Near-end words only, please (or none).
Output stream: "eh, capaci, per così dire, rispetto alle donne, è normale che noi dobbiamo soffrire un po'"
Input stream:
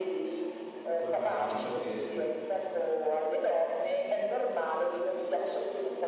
Vabbè, diciamo che